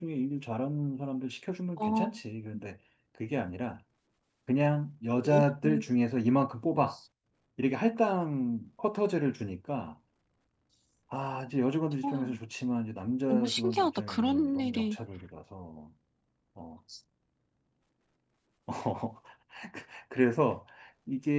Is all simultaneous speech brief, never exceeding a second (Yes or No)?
No